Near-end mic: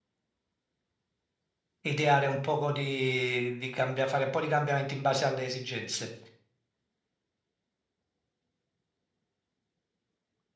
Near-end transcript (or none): ideare un poco di, di cambia- fare un po' di cambiamenti in base alle esigenze.